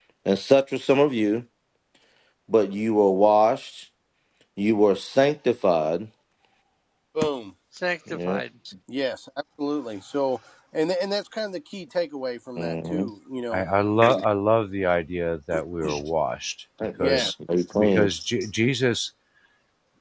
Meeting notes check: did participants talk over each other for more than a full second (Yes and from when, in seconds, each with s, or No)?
No